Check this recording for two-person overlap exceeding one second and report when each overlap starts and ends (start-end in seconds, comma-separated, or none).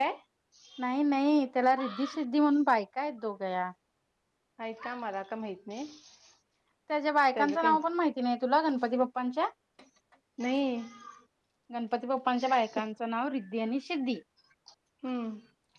none